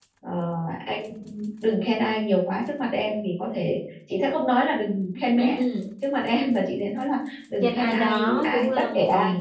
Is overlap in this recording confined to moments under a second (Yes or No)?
No